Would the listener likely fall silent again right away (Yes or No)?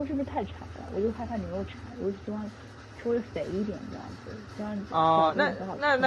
No